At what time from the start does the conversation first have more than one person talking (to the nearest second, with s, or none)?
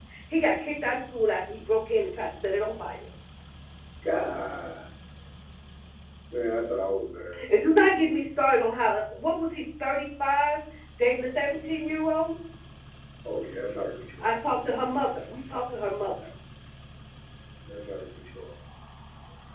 none